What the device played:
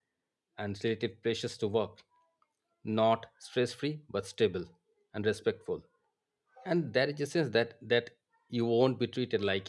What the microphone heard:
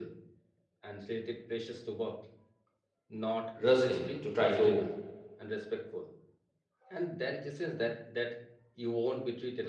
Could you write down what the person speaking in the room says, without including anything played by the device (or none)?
rush in to try to